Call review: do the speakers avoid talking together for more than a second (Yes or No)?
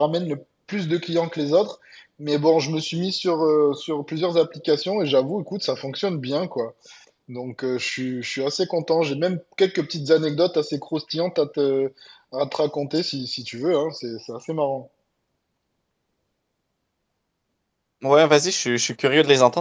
Yes